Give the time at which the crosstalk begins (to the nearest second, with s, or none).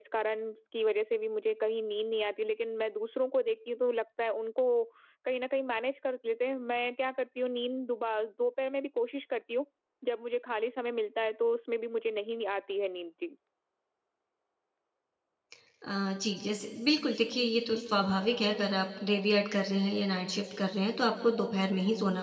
none